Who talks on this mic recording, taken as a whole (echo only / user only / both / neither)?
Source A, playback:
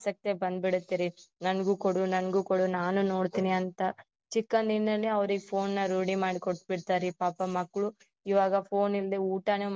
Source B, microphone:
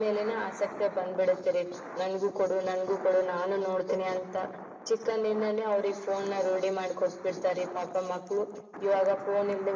echo only